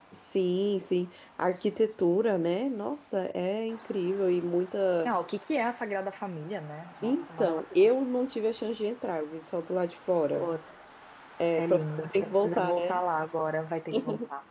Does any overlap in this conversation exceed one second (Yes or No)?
Yes